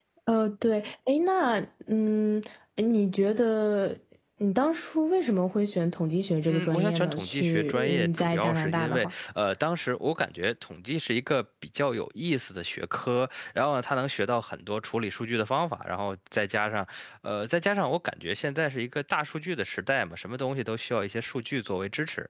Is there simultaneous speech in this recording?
Yes, from 6.5 s

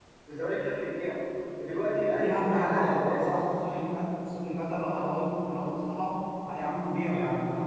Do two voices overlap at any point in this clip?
Yes, from 2.1 s

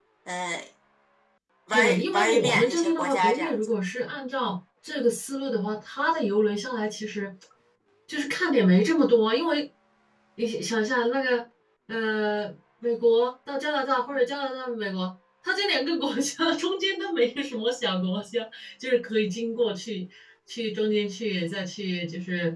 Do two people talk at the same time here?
Yes, from 1.7 s

